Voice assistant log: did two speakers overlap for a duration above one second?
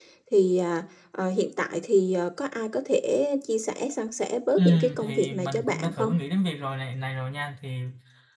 Yes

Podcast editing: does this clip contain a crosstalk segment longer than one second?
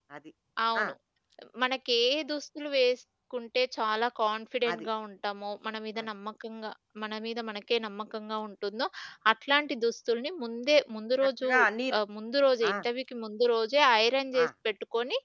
No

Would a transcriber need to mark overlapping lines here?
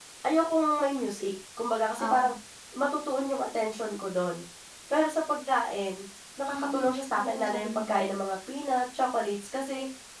Yes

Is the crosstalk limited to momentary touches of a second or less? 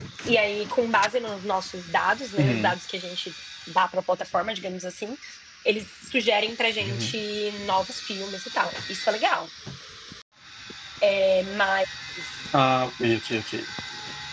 Yes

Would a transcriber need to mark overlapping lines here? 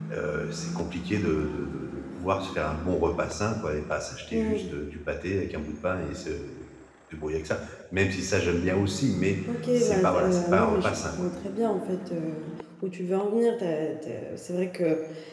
Yes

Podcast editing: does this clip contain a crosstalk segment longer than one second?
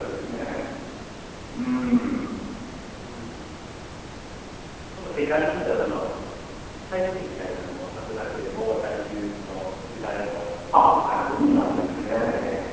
Yes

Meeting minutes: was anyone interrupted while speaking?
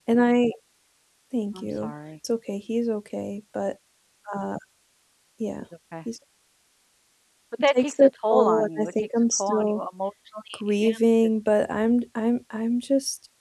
Yes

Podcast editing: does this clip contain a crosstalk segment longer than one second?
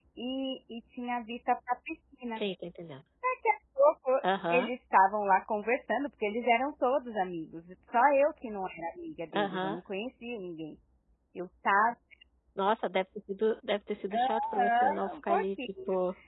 Yes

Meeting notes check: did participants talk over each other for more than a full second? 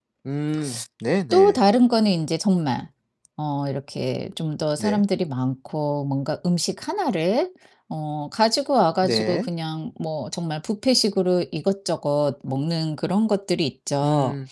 No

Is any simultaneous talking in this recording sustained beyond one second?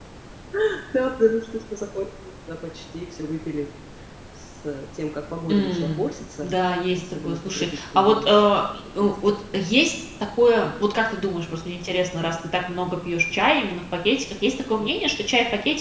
Yes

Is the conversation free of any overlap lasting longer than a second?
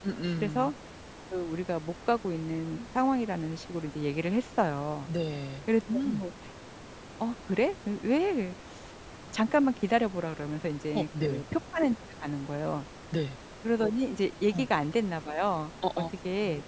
Yes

